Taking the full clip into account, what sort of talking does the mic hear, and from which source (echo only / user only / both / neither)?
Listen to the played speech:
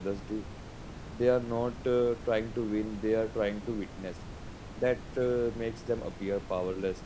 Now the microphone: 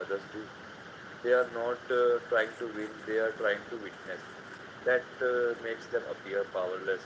echo only